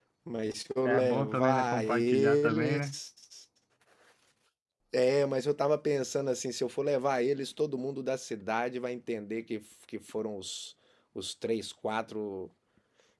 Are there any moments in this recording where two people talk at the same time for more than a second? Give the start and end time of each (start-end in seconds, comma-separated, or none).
0.8-2.9